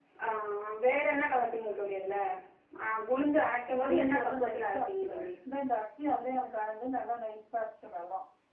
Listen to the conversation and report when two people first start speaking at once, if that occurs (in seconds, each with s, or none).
3.8 s